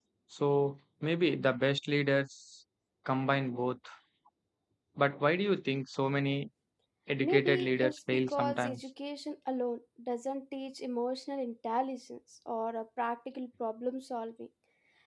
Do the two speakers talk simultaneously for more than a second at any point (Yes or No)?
Yes